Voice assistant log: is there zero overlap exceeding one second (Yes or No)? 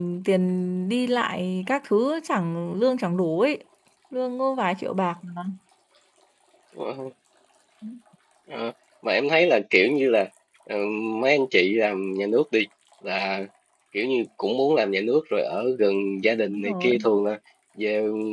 Yes